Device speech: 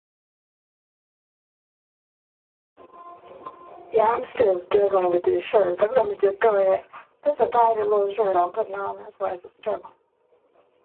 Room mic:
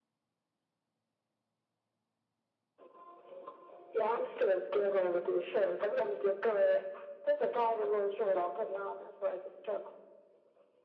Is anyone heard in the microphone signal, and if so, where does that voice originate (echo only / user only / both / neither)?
echo only